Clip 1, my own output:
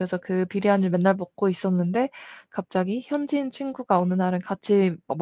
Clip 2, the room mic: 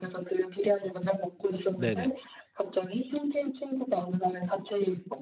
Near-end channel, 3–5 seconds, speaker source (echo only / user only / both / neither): echo only